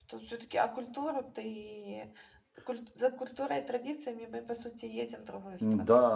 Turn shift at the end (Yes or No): Yes